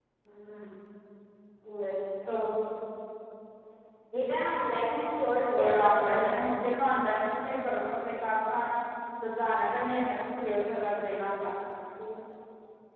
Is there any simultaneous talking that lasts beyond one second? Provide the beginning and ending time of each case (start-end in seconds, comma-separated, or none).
5.6-6.9